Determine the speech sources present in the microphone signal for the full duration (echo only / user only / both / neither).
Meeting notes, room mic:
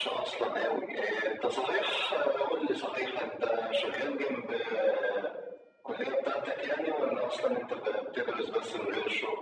echo only